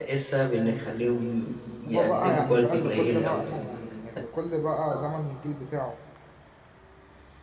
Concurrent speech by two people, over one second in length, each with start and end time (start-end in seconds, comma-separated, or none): 1.9-3.4